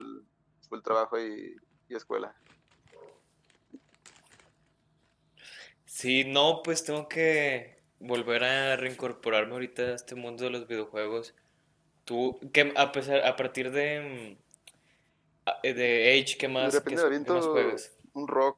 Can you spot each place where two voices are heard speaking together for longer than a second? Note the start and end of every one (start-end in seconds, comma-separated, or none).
16.6-17.8